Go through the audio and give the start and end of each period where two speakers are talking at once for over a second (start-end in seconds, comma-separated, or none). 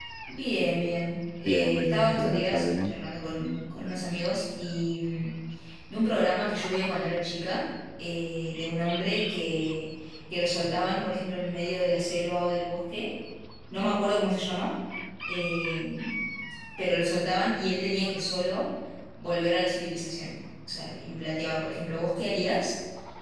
1.5-3.0